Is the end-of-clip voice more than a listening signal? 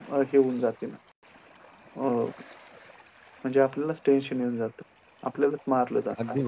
Yes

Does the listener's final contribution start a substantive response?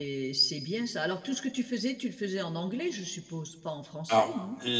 Yes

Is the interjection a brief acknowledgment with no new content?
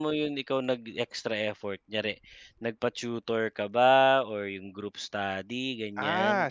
No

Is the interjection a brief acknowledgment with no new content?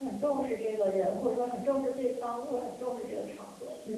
No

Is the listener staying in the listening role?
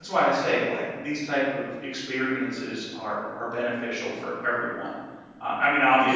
Yes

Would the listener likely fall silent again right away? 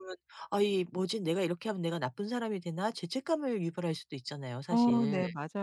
No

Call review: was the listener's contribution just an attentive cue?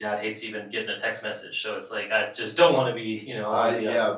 No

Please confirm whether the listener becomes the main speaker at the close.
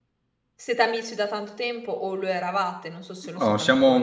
Yes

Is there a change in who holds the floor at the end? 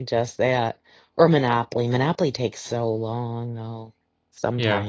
Yes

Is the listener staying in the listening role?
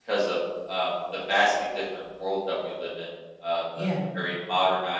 Yes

